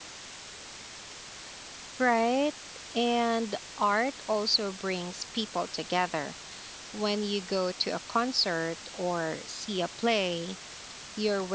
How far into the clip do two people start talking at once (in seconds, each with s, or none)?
none